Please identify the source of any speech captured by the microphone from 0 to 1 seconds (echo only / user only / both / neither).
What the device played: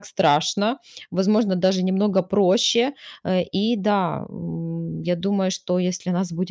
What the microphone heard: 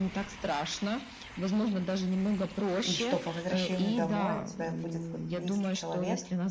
echo only